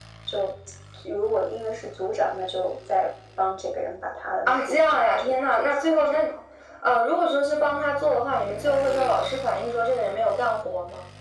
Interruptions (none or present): present